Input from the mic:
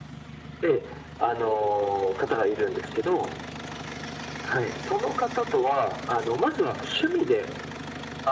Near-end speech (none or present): none